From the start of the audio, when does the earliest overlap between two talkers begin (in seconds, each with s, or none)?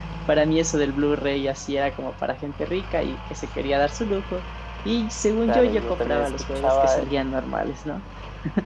5.5 s